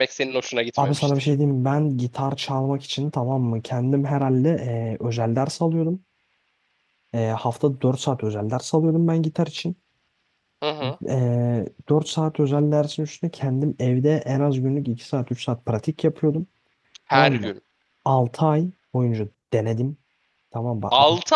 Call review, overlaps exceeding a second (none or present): none